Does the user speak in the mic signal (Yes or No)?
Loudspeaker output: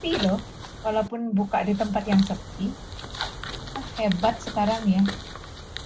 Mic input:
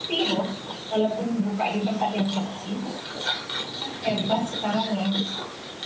Yes